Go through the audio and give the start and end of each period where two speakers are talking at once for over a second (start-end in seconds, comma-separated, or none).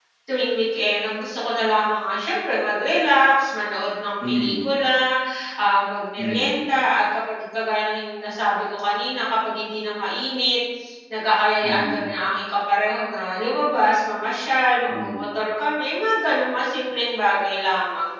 none